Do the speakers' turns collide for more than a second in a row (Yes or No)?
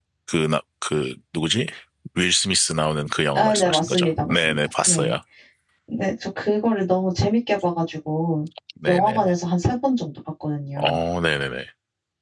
Yes